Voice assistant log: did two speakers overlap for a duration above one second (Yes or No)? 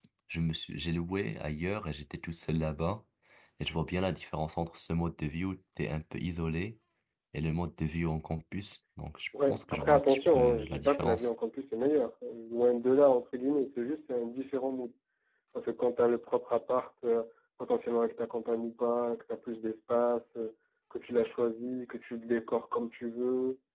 Yes